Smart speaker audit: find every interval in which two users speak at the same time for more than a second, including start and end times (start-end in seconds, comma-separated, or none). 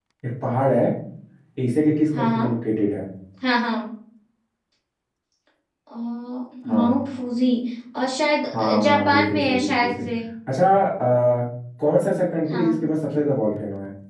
8.5-9.9